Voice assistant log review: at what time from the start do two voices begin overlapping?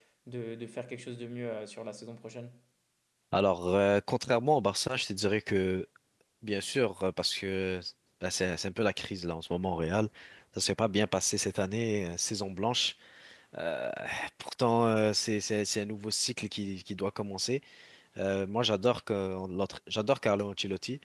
none

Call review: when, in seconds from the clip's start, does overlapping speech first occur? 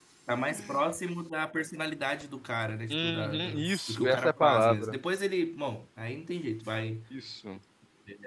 2.9 s

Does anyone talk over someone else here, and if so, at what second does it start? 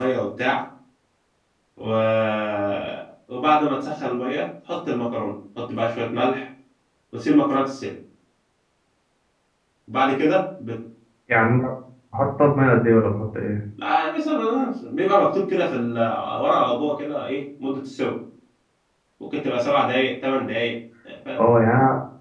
none

